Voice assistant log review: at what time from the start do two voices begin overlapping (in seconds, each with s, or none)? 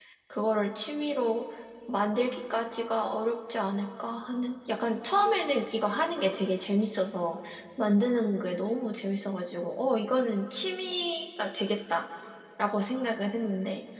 none